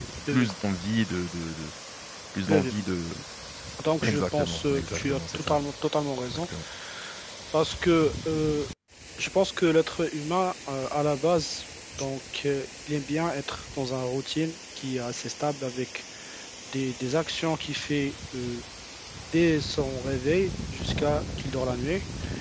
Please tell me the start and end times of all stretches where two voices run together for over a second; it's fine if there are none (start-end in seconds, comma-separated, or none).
4.0-5.6